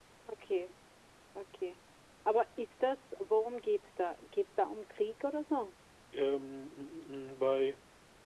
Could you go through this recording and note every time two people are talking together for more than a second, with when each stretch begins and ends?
none

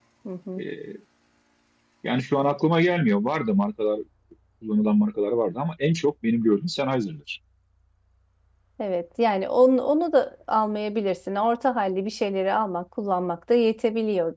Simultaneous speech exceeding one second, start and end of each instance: none

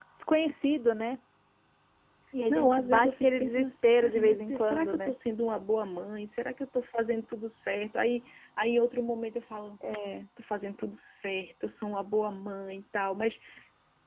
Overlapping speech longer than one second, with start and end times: 2.5-5.1

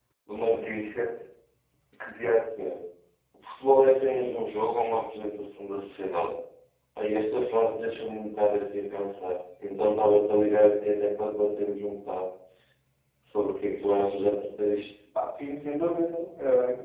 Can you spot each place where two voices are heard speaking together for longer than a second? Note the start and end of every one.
none

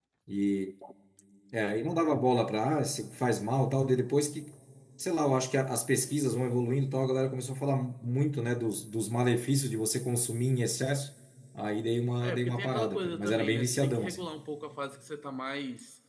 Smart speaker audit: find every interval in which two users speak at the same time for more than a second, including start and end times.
12.2-14.2

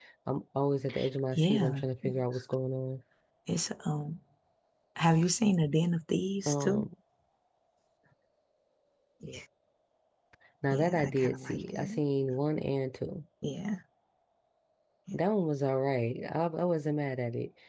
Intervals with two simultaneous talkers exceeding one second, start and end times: 10.7-12.0

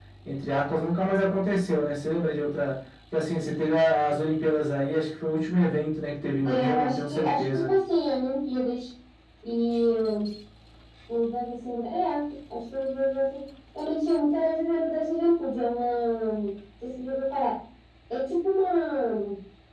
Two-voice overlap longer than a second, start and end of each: 6.5-7.7

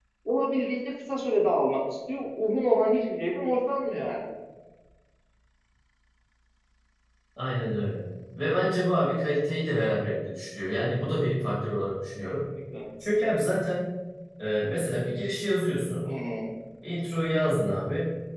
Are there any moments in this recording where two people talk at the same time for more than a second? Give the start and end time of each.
none

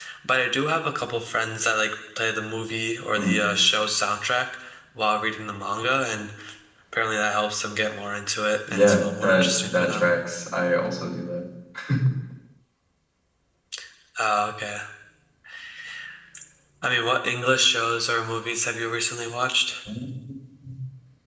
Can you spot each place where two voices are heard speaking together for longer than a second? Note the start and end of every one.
8.7-10.1

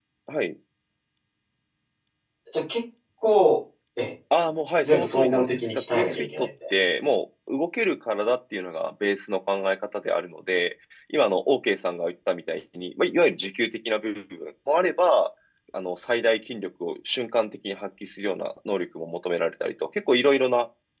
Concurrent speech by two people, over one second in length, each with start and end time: 4.8-6.7

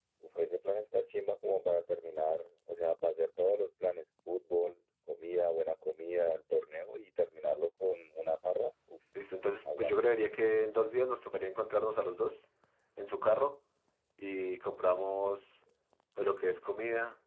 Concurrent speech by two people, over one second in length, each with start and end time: none

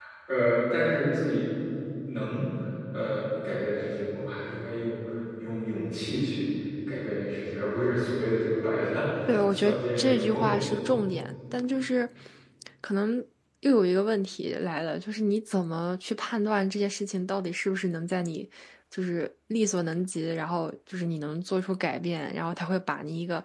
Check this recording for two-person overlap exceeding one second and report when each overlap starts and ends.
9.5-10.8

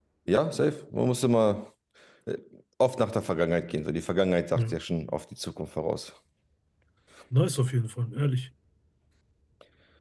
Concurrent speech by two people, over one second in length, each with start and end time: none

